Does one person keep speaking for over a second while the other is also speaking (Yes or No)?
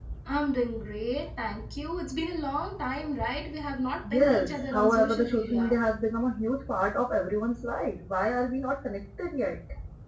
Yes